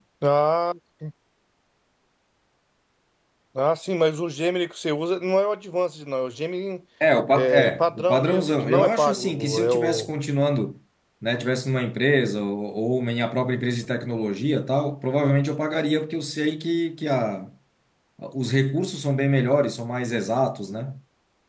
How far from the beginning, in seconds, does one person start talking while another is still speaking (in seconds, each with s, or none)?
7.3 s